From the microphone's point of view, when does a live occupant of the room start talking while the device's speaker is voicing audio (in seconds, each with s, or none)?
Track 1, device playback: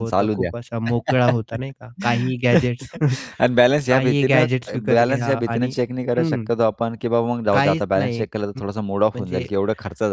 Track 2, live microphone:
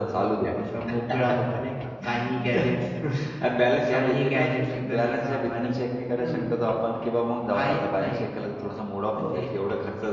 9.1 s